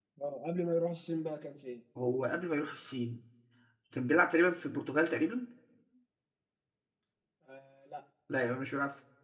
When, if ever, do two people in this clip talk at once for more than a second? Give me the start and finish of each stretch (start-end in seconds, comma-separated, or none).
none